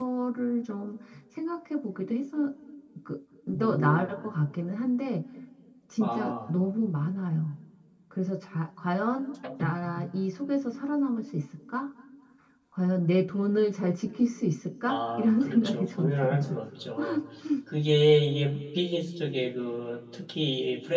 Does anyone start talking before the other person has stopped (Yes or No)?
Yes